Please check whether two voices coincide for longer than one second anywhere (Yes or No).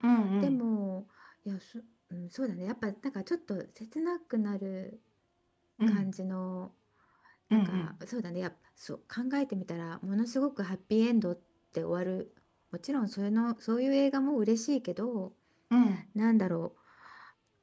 No